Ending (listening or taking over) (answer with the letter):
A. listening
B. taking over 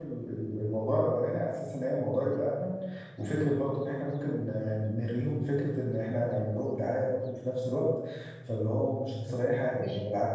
B